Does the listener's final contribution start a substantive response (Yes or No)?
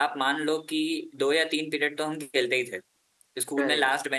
No